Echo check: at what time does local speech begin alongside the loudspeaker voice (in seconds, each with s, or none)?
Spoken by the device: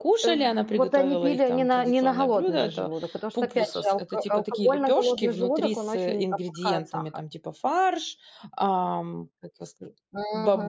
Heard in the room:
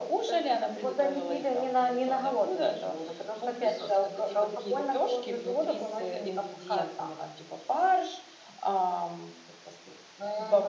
none